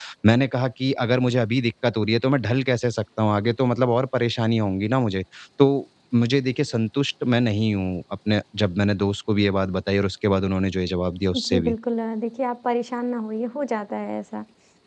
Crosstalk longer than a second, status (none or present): none